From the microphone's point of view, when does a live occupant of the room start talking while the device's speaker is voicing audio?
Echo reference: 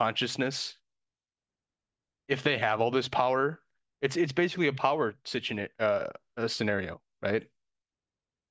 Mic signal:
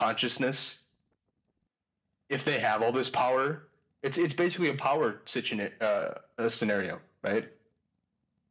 none

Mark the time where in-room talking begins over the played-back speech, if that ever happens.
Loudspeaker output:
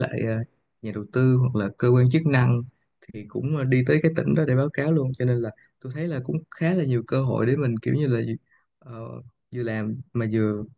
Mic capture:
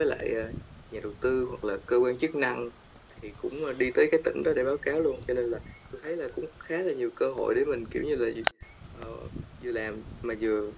none

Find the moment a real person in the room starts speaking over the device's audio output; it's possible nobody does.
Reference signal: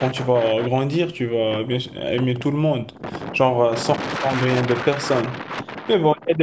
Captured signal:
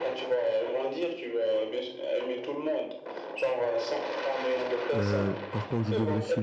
5.0 s

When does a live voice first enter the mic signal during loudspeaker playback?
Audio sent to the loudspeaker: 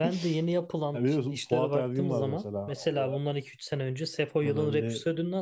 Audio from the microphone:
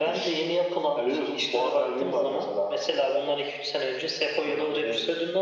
none

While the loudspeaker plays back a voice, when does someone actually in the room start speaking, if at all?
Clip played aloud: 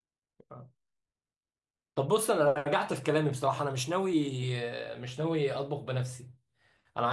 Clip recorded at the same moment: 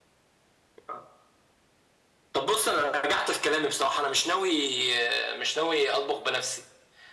none

